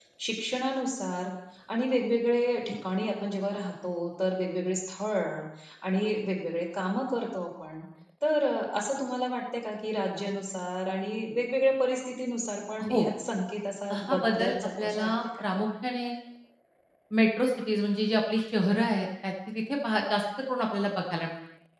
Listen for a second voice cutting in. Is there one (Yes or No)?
Yes